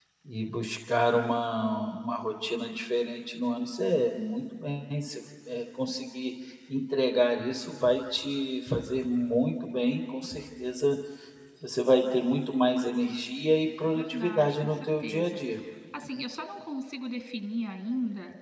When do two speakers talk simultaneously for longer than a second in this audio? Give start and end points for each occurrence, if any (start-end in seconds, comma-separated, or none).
13.9-15.4